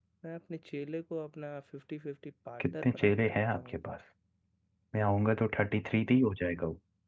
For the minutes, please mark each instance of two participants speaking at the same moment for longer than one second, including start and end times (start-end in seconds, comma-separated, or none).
2.6-3.8